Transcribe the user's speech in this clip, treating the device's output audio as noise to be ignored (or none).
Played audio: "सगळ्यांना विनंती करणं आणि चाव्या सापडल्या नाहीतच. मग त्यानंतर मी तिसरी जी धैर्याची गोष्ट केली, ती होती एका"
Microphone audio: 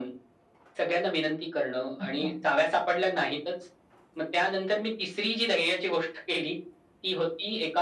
अच्छा.